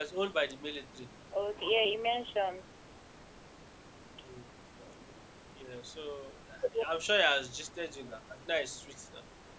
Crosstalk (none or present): none